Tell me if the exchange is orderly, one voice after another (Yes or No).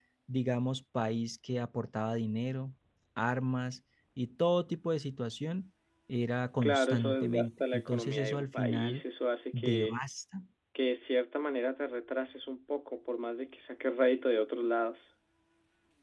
No